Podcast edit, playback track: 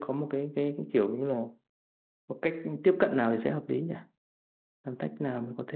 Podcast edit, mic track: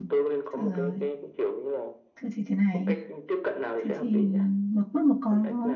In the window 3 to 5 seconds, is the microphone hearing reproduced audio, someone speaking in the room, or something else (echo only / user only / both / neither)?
both